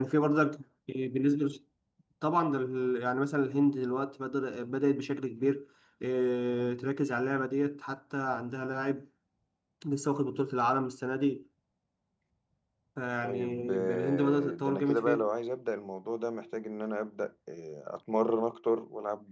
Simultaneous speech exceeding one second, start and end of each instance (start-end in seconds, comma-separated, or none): 13.2-15.2